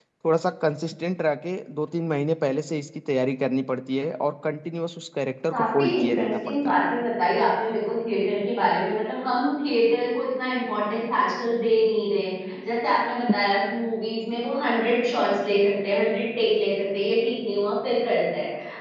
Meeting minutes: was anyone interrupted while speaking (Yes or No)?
Yes